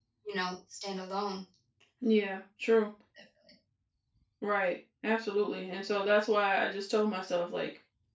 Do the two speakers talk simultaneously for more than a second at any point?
No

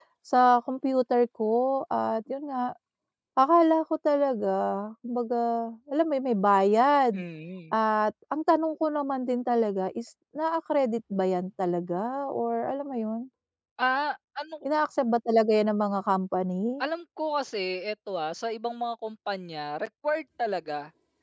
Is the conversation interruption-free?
Yes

